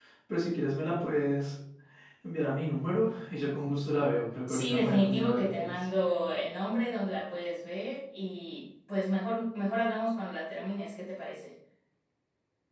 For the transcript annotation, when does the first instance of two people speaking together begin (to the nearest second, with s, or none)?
4 s